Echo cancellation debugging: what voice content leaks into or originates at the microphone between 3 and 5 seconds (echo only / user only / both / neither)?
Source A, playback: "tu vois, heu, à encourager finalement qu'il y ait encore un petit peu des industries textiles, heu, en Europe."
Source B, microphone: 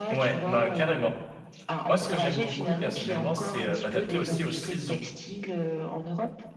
both